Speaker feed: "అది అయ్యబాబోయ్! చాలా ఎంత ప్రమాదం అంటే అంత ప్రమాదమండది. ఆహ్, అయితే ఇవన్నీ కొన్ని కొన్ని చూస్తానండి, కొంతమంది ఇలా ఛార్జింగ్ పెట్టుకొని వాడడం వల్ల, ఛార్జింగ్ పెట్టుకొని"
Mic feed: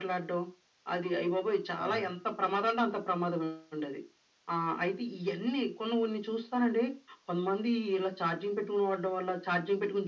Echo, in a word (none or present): present